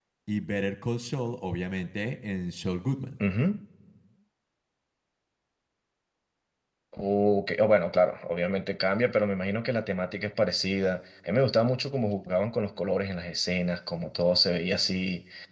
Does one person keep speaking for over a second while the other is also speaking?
No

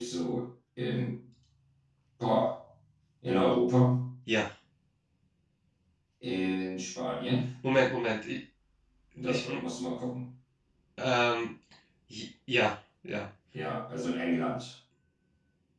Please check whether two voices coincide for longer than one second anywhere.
No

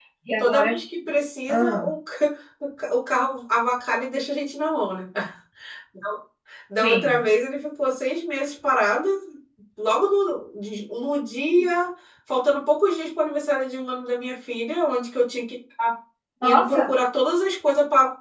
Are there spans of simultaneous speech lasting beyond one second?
No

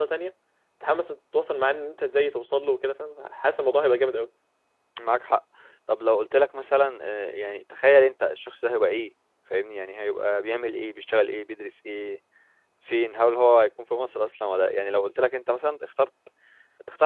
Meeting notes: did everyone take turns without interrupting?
Yes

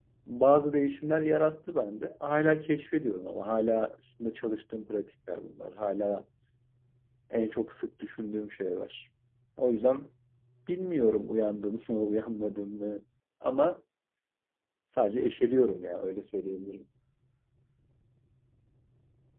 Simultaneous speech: No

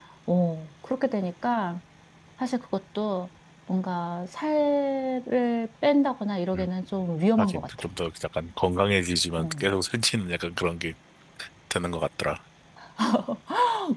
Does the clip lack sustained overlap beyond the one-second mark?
Yes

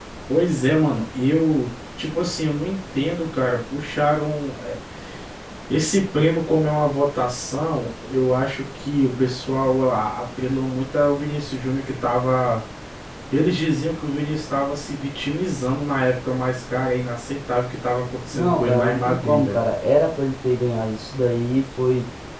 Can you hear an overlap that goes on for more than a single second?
Yes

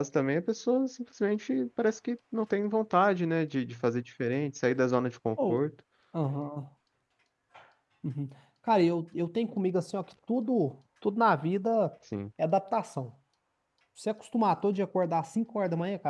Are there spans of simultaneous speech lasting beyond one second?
No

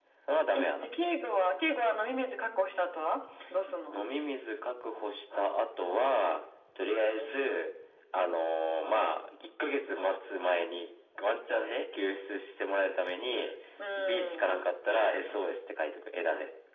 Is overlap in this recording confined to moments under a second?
Yes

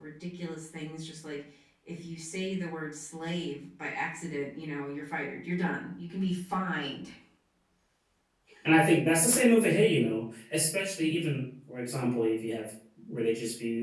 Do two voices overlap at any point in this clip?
No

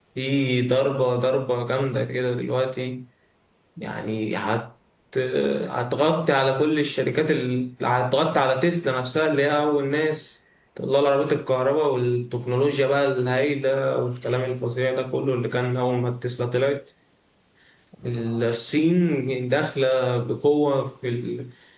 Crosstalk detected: No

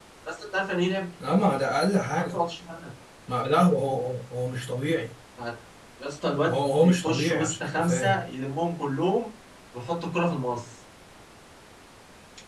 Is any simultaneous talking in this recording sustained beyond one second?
Yes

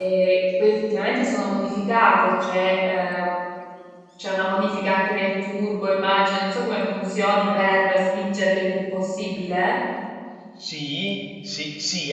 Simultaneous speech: No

